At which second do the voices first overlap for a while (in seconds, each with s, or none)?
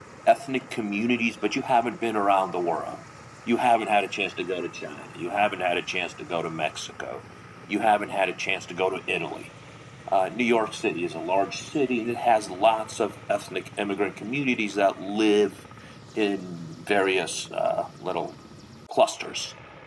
none